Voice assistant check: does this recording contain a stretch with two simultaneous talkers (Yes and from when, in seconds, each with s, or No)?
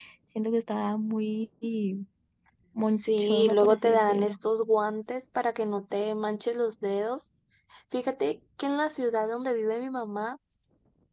Yes, from 3.0 s